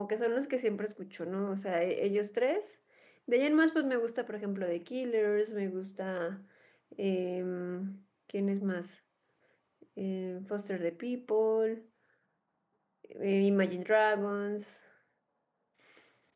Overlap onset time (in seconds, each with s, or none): none